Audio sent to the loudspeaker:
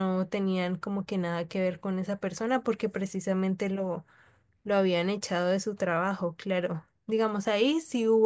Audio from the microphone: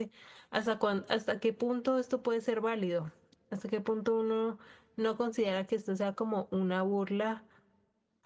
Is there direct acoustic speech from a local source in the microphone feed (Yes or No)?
Yes